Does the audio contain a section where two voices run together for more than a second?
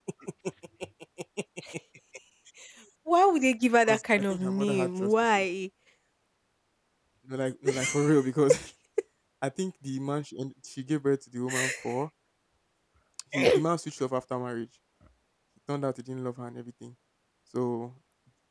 Yes, from 3.9 s

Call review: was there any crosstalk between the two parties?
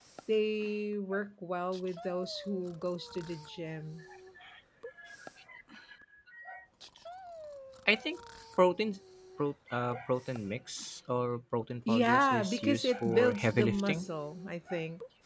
Yes, from 11.9 s

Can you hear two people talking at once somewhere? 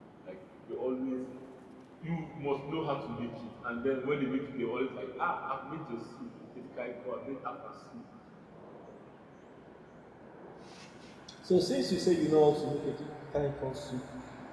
No

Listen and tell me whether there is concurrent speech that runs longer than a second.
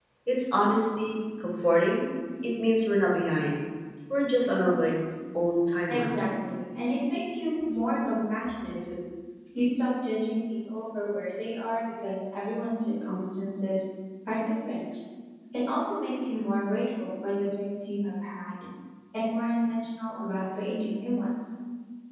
No

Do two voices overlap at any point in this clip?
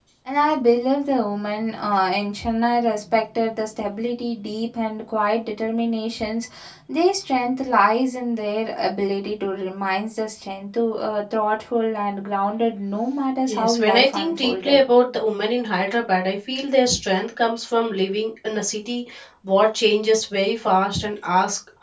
Yes, from 13.5 s

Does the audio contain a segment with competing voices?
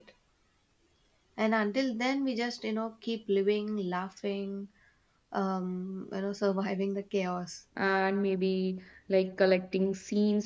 No

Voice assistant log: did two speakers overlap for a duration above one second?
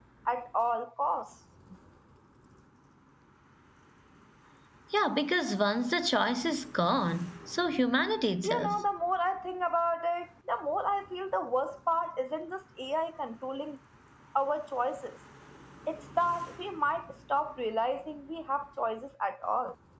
No

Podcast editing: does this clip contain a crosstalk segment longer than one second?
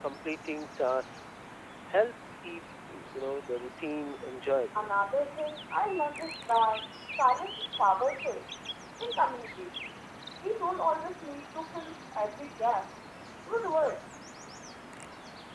No

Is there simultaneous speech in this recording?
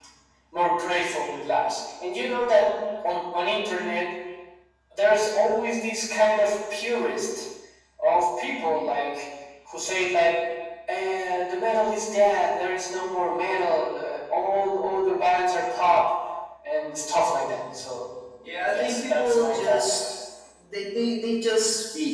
Yes, from 18.7 s

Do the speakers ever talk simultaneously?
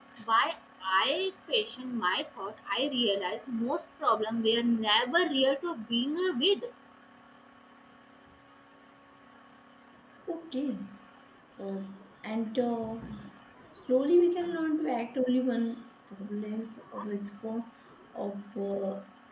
No

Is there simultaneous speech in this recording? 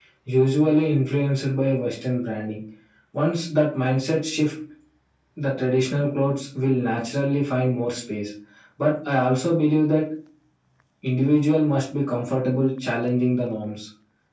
No

